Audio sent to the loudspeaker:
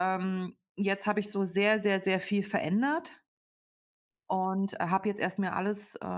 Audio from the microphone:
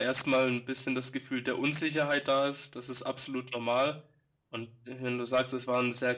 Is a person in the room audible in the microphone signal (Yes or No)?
Yes